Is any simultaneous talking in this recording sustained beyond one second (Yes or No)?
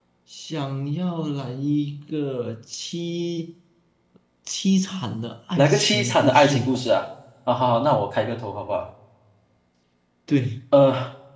Yes